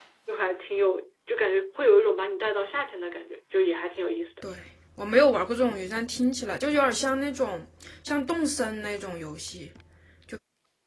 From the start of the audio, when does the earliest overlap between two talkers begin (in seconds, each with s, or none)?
none